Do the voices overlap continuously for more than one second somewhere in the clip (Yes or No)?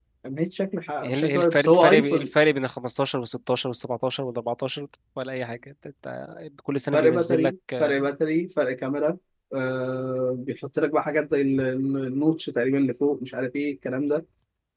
Yes